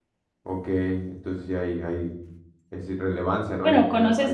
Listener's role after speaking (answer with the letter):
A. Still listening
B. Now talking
B